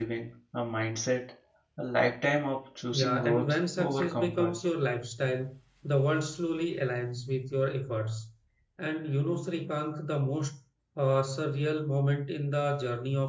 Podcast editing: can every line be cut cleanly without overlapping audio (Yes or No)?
No